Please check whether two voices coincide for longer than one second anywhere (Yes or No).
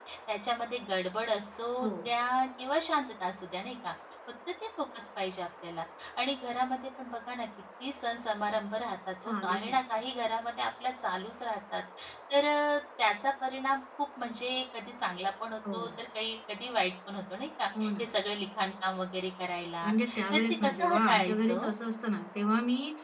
Yes